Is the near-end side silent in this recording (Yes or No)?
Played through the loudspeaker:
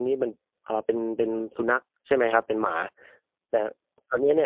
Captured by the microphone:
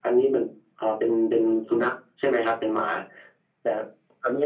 Yes